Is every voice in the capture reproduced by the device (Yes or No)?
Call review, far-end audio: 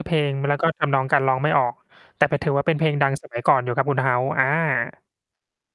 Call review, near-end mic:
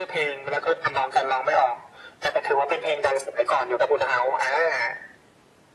Yes